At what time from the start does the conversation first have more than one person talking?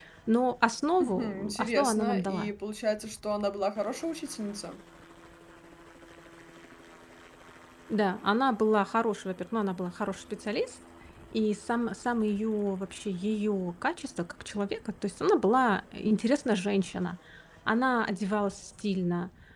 1.0 s

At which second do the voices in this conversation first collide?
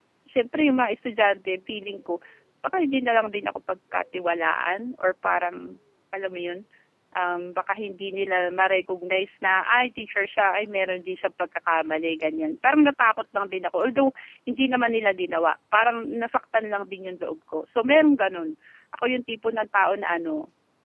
none

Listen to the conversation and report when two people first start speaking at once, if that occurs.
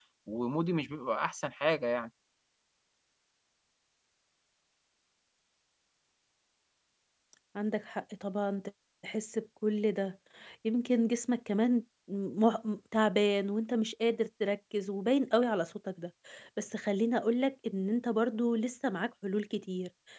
none

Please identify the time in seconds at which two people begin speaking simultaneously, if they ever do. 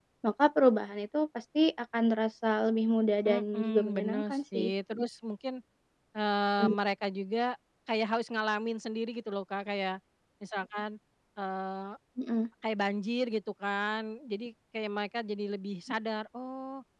3.3 s

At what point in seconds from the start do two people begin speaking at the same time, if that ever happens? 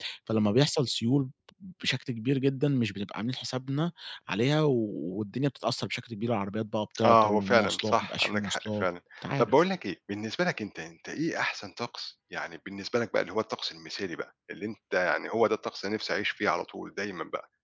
7.0 s

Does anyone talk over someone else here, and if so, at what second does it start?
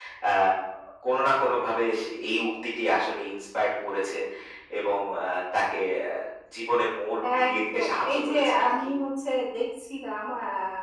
7.4 s

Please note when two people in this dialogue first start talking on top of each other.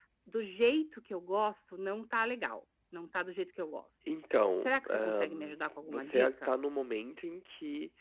4.6 s

